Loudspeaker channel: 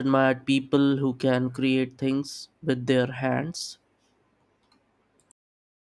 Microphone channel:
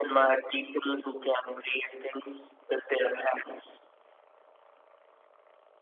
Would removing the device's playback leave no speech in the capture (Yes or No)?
Yes